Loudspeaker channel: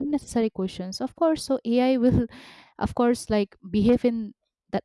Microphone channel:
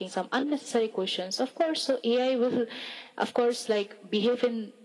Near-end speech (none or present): none